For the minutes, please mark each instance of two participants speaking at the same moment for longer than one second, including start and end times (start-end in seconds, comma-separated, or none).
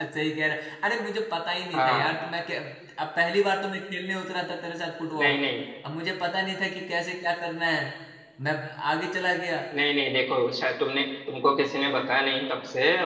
none